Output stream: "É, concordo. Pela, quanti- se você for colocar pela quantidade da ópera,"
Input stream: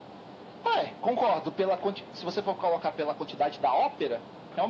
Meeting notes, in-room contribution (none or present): none